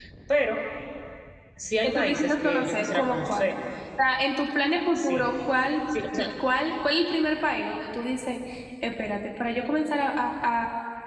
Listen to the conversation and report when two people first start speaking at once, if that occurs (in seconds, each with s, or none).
1.8 s